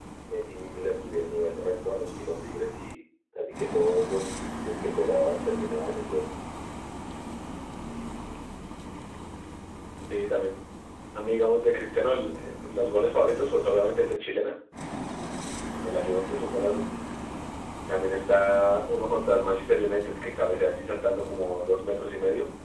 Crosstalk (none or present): none